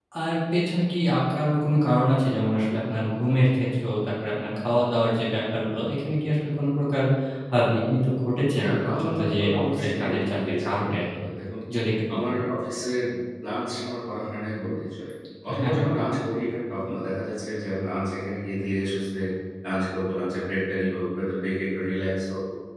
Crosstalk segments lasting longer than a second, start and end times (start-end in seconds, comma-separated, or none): 8.6-11.0